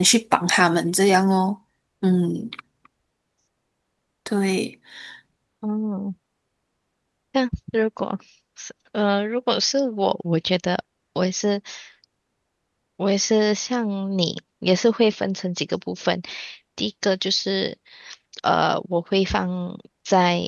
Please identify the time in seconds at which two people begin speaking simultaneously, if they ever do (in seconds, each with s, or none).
none